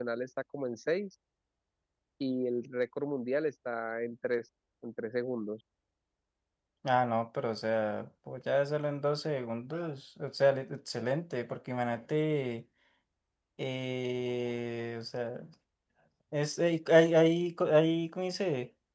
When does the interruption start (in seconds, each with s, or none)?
none